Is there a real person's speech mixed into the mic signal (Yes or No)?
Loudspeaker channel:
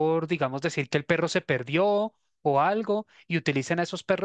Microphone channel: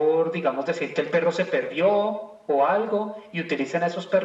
No